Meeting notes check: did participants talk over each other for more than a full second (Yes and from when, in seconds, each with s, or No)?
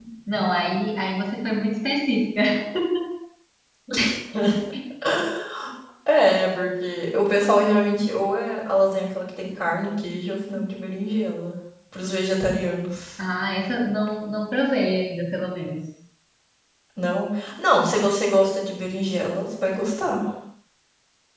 No